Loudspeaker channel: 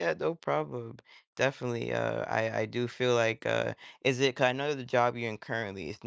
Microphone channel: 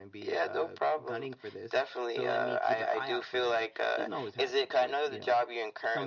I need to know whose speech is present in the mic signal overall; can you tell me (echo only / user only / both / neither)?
both